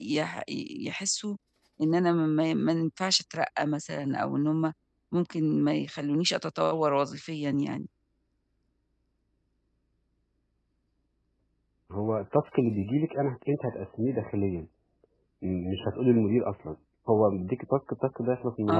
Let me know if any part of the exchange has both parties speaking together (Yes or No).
No